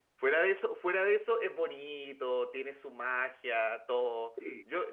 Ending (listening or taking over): listening